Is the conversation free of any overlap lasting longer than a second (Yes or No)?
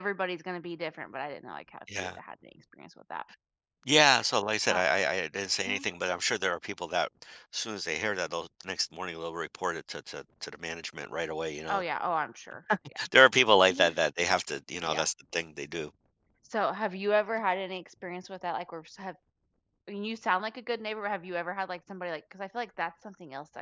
Yes